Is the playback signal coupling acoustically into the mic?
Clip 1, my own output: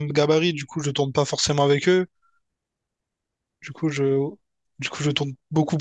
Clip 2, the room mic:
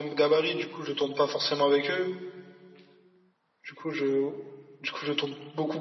Yes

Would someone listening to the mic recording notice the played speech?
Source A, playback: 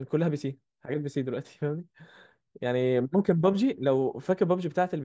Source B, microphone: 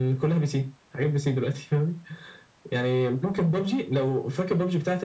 Yes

